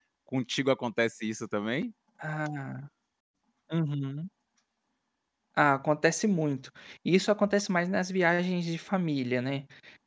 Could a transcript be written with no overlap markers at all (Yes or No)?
Yes